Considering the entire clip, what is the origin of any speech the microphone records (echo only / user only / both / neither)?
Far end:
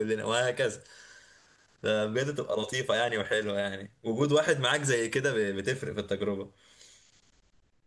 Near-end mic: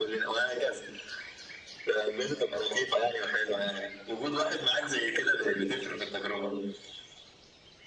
echo only